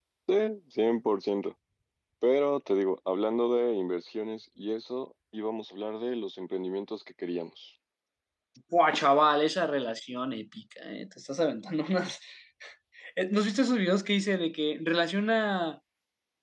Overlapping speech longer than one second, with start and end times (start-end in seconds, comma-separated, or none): none